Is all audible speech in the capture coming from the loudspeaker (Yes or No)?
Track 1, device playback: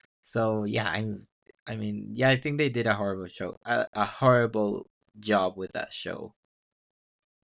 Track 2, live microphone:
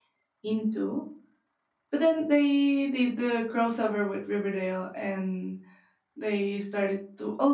No